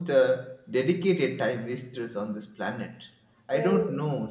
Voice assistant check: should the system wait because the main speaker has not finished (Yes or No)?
Yes